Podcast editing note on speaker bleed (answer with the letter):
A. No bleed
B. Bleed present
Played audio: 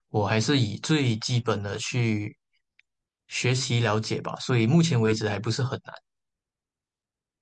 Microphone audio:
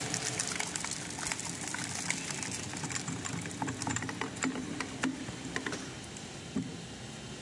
A